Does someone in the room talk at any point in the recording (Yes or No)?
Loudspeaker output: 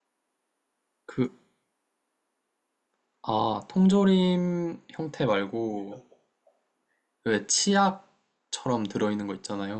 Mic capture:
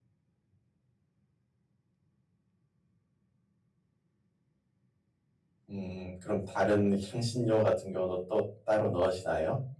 Yes